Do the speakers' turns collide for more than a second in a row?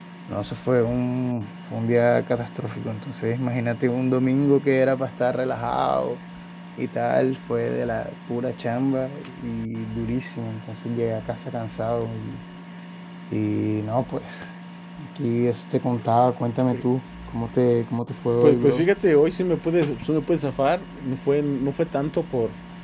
No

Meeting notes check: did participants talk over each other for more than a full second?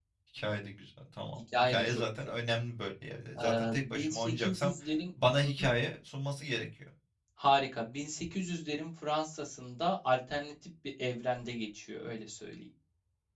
Yes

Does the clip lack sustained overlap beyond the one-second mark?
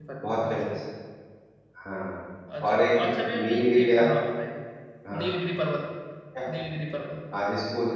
No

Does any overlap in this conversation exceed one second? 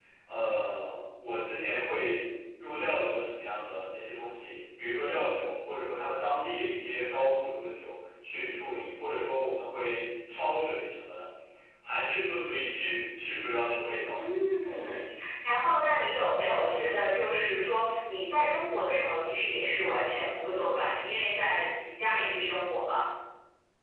No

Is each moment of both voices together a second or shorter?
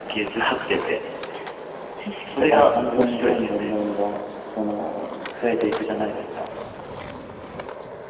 No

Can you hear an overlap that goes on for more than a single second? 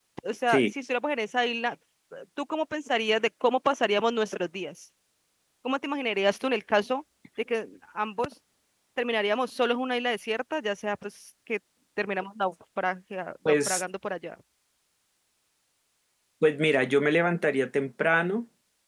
No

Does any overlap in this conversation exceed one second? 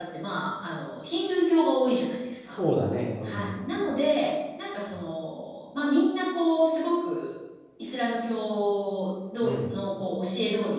No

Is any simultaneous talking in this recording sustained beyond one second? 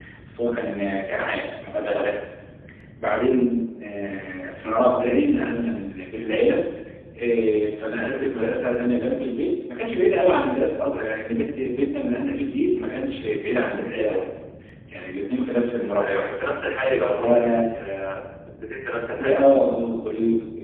No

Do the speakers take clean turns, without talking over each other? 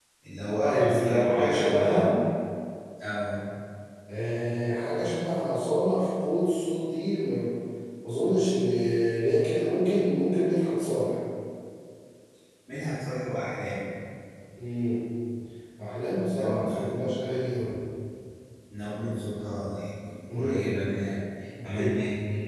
No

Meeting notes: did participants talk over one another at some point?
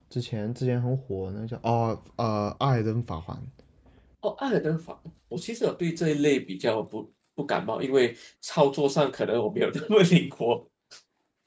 No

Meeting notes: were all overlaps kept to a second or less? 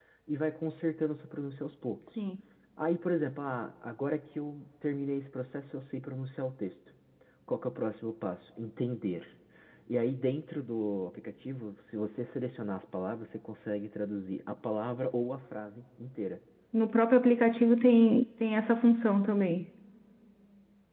Yes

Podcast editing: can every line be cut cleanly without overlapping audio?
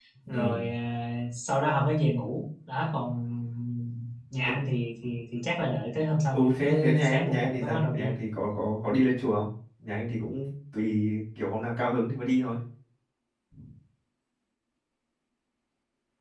No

